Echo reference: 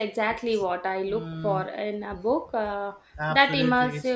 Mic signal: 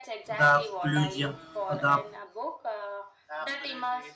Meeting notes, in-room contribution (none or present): present